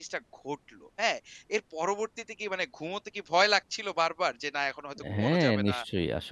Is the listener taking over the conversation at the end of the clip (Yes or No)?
Yes